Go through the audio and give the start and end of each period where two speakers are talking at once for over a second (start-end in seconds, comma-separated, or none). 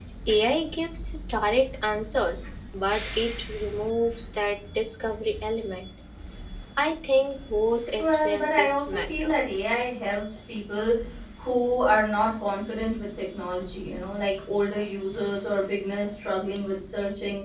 8.0-9.3